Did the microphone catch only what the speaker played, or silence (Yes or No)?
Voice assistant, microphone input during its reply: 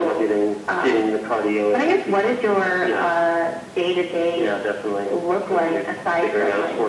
Yes